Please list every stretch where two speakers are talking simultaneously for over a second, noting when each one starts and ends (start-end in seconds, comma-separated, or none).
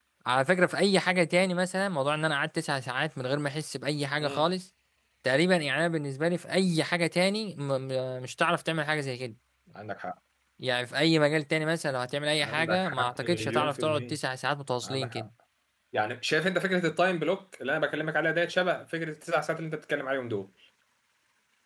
12.4-14.2